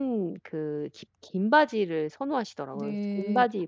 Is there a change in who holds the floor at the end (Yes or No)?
Yes